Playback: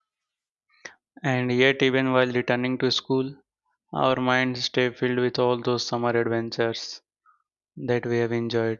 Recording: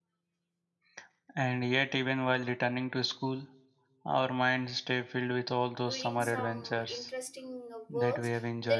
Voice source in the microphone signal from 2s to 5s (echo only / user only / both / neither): echo only